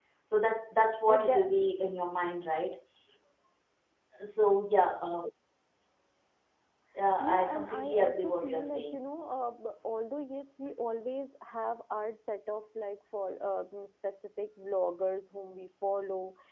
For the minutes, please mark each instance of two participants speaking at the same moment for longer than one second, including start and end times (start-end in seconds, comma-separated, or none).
7.2-9.0